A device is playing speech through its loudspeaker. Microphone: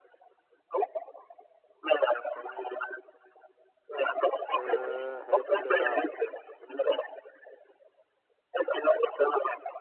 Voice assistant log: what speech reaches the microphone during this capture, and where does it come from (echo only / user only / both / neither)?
both